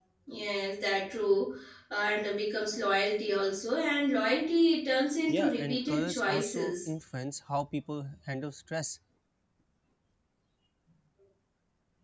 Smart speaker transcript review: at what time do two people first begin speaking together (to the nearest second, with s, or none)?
5 s